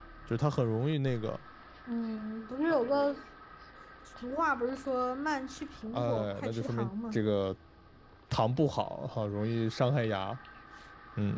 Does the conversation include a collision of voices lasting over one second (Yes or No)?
Yes